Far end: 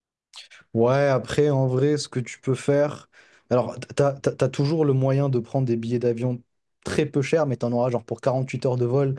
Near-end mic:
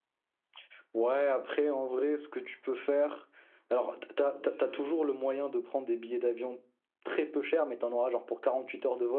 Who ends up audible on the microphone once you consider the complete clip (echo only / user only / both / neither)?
both